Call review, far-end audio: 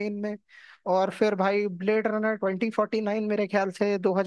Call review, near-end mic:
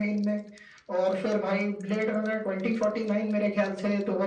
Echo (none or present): present